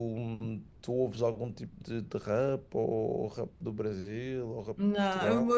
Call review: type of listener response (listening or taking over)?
taking over